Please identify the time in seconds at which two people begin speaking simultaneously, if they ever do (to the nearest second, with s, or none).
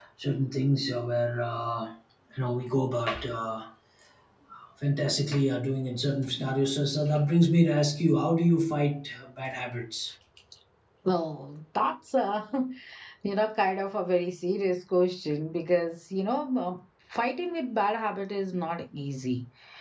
none